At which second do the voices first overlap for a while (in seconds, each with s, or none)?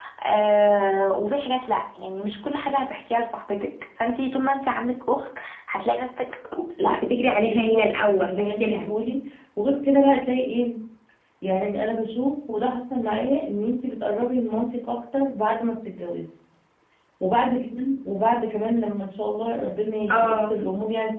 7.4 s